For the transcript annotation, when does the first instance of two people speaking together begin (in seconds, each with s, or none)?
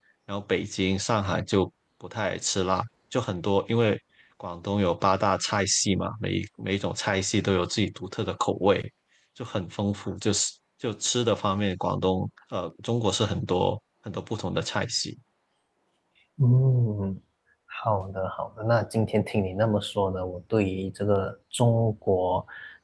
none